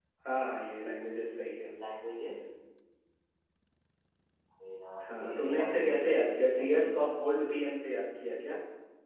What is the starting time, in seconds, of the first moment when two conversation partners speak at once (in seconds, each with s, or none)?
5.1 s